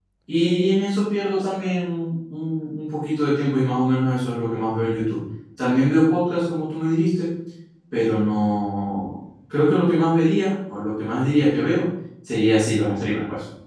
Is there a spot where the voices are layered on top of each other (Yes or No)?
No